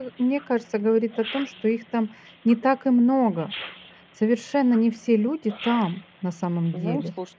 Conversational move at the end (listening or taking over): taking over